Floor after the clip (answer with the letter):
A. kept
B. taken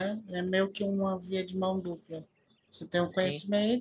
A